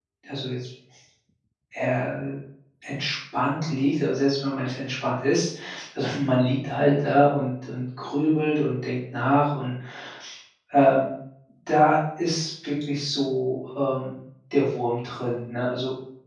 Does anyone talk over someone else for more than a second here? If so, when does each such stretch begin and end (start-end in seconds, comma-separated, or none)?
none